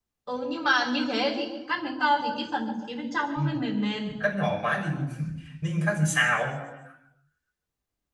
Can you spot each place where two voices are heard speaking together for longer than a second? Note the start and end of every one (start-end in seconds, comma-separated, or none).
none